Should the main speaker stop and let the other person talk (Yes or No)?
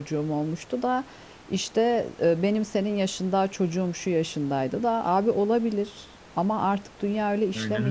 Yes